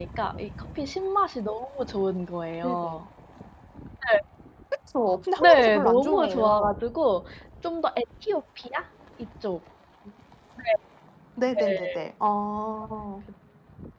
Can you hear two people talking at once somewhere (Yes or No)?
Yes